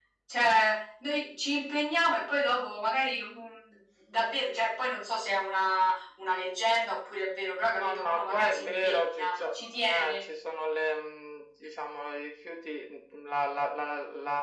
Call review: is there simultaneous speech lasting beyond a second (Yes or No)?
Yes